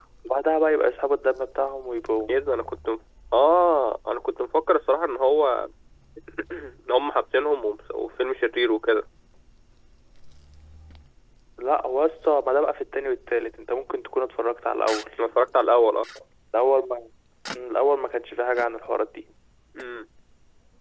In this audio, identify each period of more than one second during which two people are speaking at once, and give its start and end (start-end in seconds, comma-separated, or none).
none